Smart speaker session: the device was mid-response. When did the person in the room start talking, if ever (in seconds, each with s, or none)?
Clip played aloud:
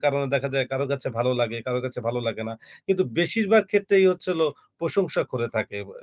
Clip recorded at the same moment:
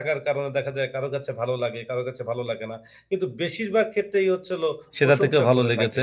5.0 s